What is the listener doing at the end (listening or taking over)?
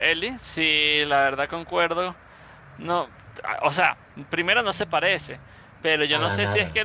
listening